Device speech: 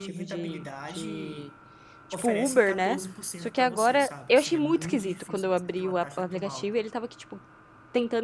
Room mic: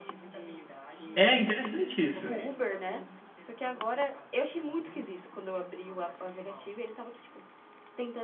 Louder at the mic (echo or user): user